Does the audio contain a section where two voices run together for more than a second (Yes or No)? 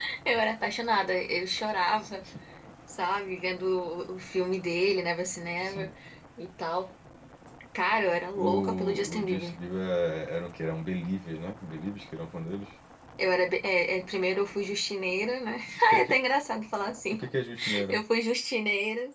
Yes